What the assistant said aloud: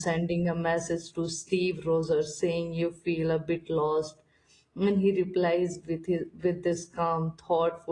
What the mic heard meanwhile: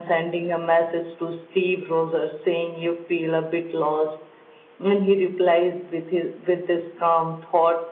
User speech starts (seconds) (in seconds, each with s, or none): none